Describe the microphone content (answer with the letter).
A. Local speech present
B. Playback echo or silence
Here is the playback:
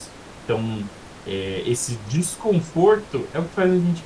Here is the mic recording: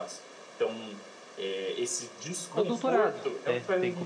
A